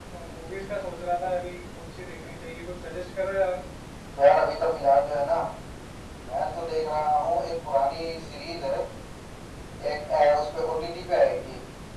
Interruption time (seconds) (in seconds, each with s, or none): none